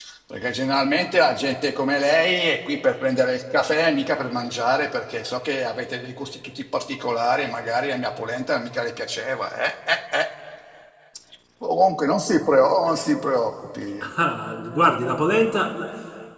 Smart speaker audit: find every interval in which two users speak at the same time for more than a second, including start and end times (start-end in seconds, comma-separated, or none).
none